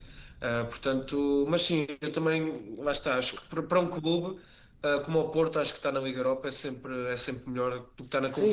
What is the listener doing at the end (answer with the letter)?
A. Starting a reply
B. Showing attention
A